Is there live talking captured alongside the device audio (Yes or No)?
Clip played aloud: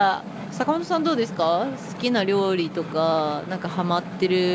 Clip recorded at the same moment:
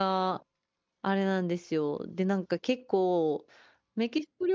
Yes